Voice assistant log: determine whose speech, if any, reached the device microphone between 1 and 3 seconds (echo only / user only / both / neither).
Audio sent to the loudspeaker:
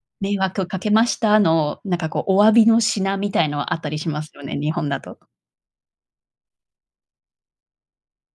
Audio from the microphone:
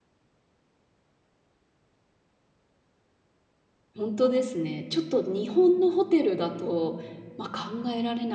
neither